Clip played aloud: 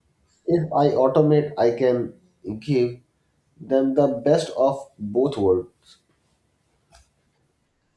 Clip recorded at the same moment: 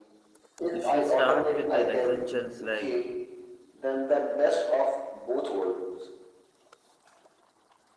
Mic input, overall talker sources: both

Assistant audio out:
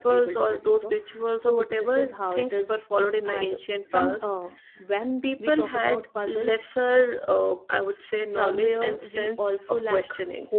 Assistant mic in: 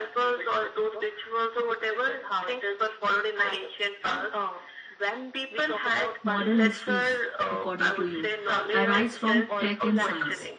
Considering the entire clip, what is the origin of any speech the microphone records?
both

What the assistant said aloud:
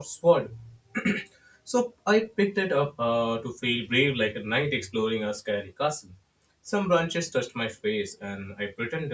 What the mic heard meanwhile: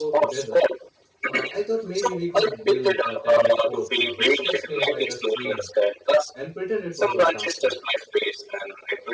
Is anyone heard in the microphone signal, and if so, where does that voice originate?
both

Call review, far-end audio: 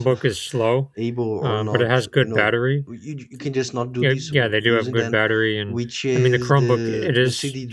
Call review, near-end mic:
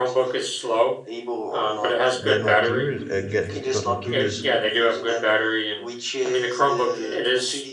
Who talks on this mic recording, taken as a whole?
both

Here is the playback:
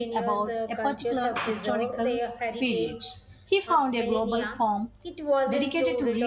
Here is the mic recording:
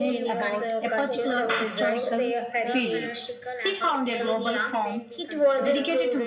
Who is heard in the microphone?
both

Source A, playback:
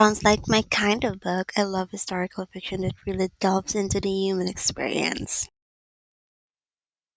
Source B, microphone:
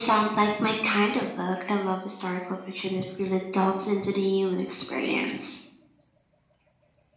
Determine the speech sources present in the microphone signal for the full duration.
echo only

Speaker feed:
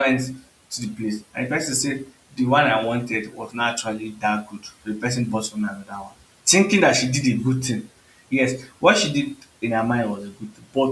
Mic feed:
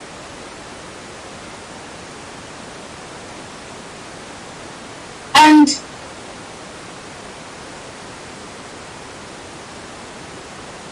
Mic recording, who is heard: user only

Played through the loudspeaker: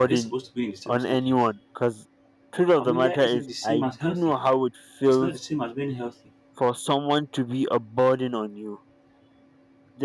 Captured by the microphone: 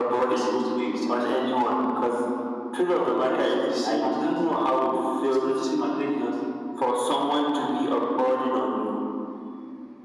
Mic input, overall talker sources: echo only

